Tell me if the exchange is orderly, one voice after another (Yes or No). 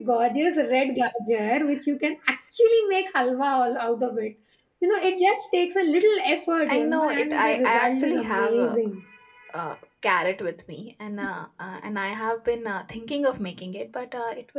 No